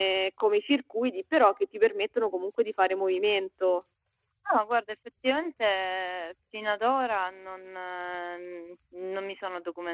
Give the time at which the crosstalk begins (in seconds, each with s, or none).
none